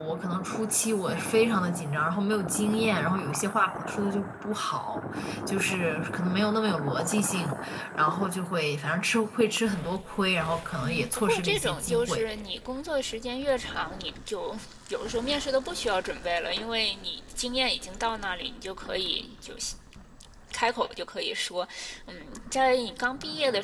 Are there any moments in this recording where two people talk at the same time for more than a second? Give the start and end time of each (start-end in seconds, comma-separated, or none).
10.8-12.2